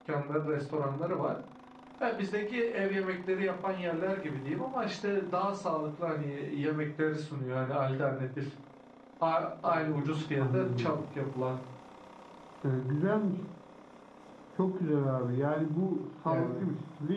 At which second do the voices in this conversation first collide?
9.7 s

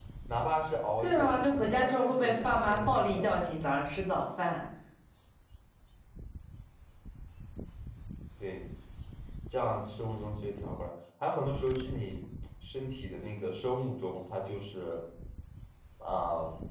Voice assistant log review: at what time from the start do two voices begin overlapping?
1.0 s

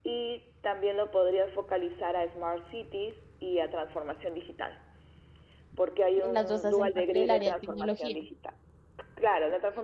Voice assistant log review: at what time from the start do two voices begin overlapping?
6.2 s

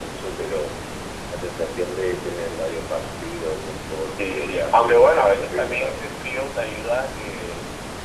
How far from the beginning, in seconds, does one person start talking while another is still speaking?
4.2 s

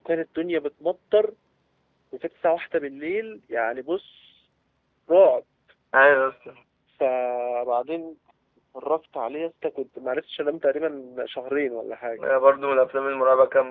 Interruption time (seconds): none

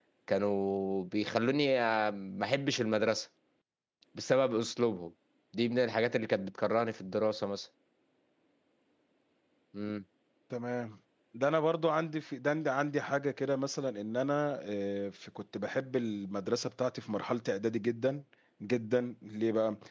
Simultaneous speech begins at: none

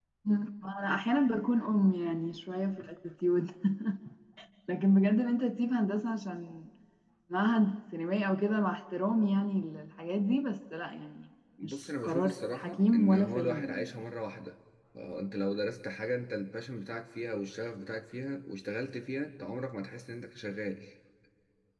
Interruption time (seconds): 11.6 s

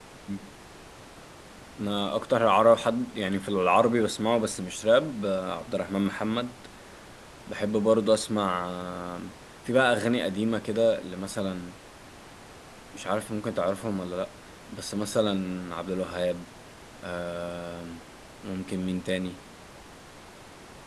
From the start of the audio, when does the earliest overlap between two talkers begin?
none

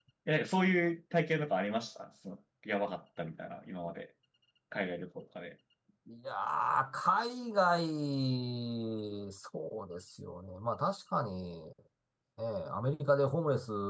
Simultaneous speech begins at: none

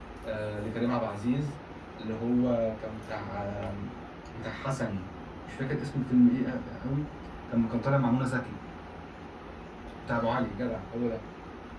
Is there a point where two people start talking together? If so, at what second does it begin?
none

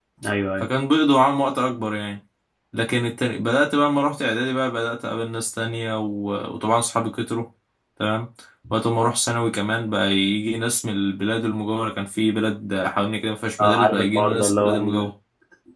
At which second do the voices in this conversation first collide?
13.6 s

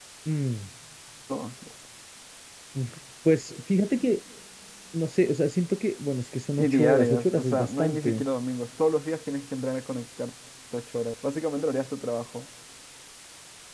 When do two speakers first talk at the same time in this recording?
6.6 s

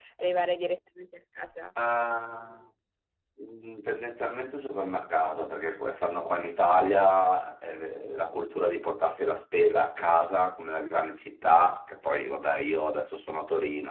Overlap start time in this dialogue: none

